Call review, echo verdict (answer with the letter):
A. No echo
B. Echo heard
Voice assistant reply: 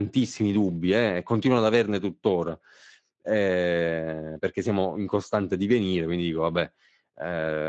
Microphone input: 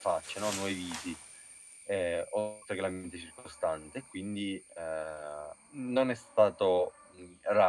A